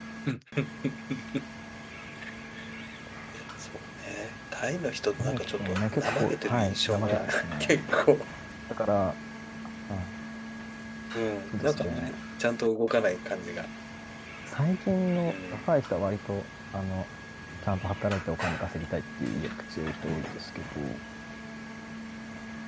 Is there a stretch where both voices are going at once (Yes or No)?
Yes